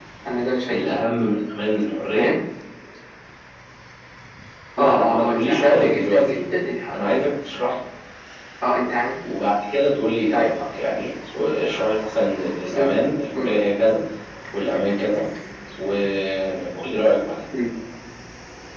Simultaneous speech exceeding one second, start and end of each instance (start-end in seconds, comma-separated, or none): 4.8-6.3